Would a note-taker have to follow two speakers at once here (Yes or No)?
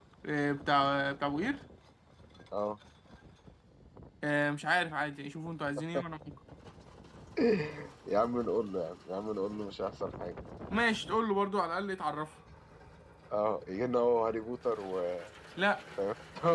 No